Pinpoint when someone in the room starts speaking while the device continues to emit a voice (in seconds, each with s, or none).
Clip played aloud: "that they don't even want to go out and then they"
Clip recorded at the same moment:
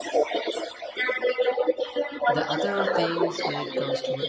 2.2 s